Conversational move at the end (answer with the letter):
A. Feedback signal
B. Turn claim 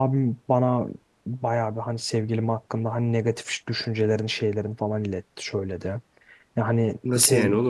B